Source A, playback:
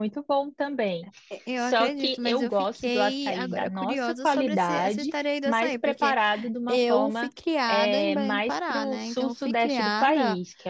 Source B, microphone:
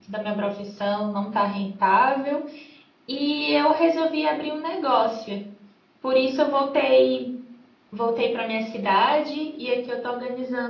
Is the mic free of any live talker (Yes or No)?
No